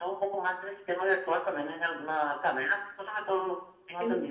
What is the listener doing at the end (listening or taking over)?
taking over